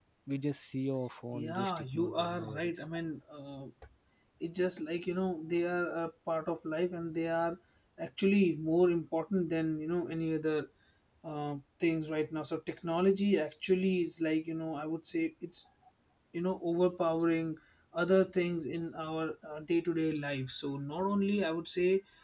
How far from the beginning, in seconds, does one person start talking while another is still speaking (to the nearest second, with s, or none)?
1 s